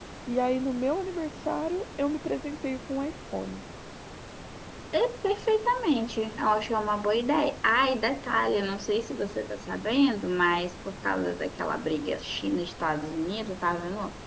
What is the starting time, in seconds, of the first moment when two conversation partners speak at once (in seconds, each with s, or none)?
none